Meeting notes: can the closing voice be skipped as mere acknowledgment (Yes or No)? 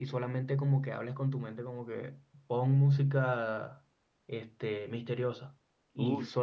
Yes